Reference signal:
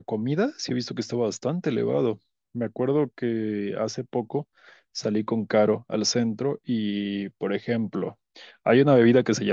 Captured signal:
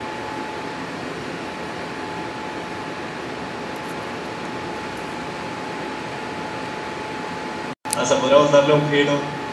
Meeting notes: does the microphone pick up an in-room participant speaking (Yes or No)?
Yes